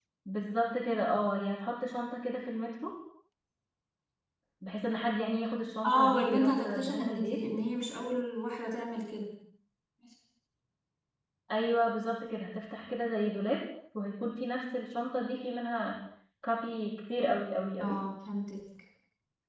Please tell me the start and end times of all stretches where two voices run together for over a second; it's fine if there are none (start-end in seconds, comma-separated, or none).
5.8-7.4